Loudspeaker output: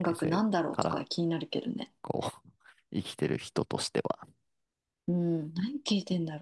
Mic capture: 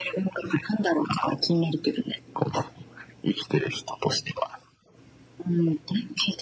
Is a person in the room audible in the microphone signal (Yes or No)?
No